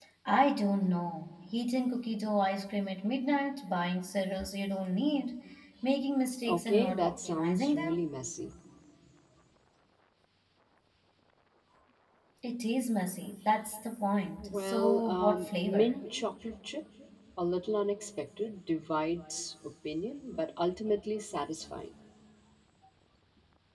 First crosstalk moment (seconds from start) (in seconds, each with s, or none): 6.5 s